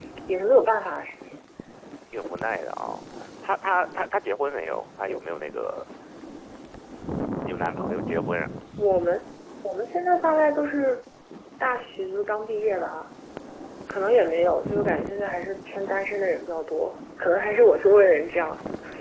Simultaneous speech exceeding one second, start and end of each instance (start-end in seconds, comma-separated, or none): none